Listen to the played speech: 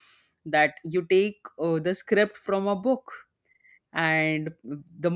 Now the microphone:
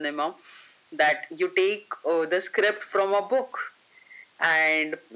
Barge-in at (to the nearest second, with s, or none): none